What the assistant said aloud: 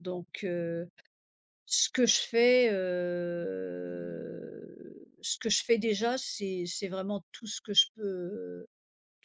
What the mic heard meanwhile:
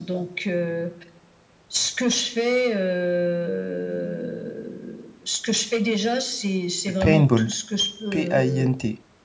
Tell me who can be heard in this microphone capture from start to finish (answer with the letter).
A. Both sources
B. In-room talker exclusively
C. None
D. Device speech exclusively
A